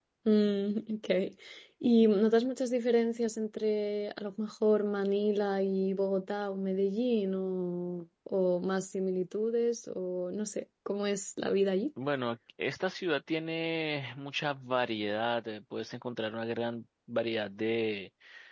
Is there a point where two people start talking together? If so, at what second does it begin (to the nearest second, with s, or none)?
none